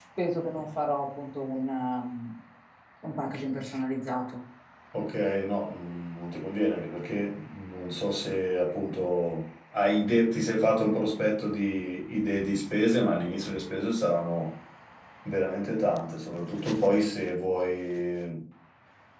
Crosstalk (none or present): none